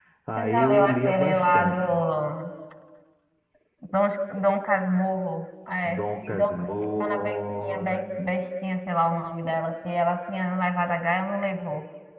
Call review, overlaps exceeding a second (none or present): present